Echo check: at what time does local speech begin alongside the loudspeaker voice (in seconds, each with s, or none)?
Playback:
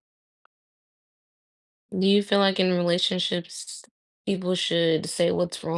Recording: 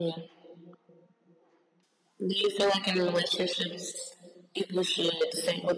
none